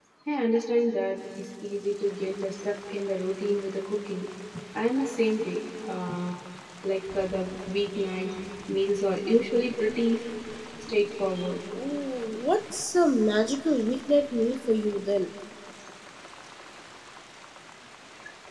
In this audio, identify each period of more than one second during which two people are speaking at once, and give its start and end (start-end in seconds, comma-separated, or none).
none